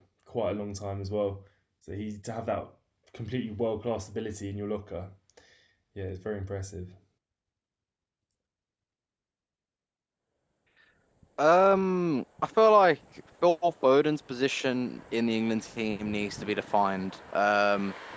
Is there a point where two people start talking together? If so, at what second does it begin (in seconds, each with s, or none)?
none